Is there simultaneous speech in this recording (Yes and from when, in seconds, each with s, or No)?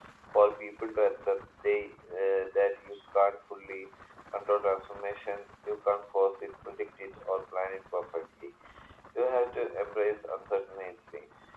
No